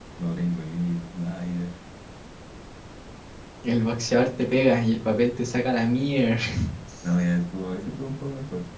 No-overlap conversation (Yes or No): Yes